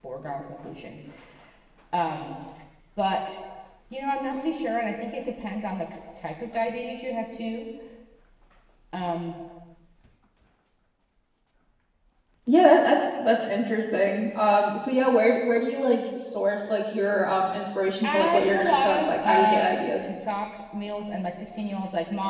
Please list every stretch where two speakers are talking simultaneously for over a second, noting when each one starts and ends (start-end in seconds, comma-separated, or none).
18.0-20.1